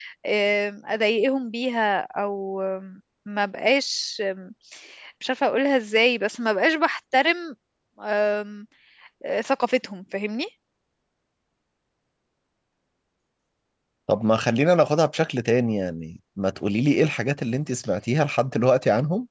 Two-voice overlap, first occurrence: none

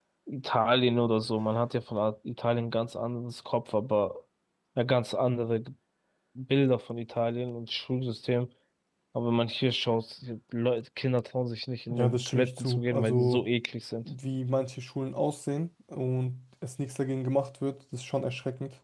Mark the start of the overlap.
12 s

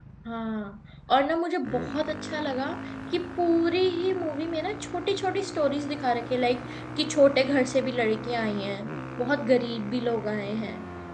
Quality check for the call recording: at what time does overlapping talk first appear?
none

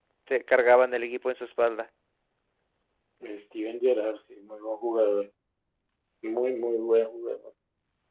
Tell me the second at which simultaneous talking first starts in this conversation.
none

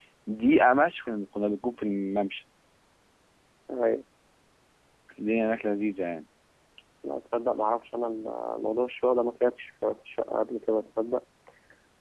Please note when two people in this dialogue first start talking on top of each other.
none

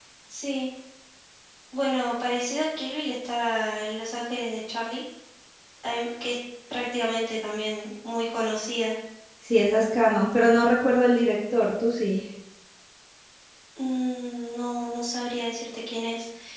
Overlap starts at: none

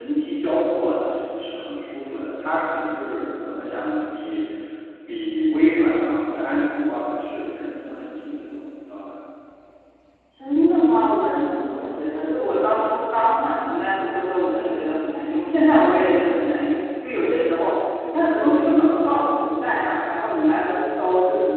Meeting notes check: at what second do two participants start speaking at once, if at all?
none

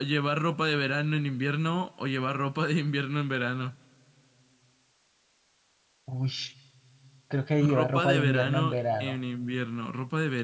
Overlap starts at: 8 s

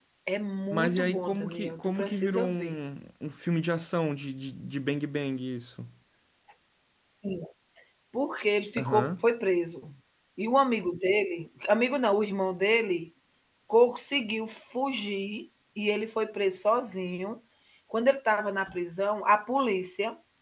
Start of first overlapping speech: 1 s

